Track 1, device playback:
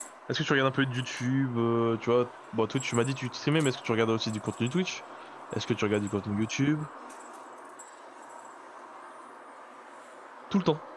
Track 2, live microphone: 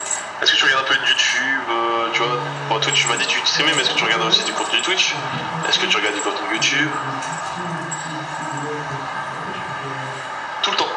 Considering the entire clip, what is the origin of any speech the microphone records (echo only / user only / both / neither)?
both